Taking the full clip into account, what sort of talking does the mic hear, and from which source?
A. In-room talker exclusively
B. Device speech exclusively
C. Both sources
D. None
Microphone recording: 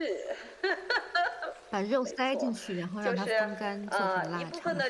C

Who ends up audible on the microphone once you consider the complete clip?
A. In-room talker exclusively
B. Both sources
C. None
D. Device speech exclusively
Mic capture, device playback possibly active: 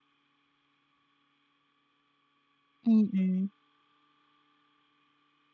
A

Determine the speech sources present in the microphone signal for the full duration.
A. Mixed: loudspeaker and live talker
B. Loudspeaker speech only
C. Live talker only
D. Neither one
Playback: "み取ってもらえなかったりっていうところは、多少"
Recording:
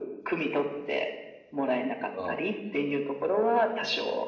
A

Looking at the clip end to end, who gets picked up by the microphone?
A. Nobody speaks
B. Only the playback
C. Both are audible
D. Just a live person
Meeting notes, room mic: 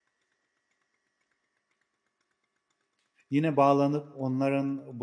D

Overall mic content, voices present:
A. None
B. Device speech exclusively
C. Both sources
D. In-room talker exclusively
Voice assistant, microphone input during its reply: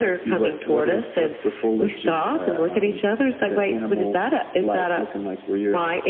B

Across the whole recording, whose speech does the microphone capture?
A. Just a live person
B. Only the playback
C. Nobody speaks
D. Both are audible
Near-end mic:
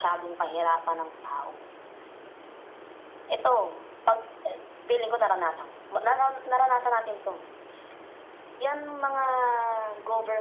B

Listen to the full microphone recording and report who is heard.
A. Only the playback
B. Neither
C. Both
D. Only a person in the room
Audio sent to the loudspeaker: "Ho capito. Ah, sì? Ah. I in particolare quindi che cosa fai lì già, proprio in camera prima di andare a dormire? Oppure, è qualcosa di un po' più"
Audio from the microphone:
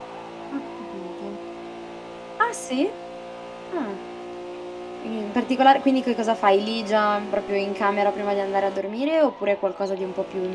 A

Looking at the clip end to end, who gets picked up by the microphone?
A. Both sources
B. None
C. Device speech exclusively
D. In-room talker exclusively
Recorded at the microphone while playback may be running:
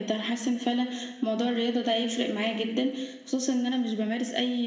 C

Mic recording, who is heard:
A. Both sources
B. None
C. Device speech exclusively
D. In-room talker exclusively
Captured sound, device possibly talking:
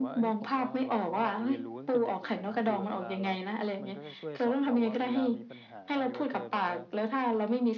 A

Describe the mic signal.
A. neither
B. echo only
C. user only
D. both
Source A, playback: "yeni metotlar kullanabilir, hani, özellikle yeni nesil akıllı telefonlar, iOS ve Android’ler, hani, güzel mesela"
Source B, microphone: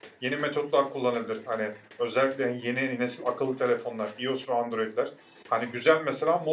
B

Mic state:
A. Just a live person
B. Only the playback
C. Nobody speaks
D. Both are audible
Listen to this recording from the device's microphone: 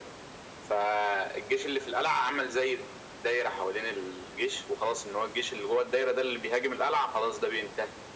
B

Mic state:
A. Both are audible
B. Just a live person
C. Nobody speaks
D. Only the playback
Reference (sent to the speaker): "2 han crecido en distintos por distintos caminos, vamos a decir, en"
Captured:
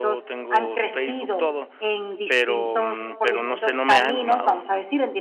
A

